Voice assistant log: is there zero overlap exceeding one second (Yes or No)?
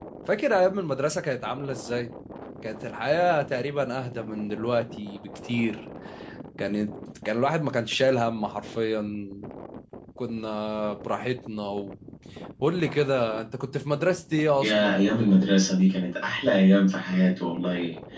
Yes